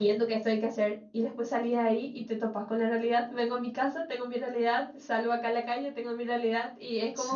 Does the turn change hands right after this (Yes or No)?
No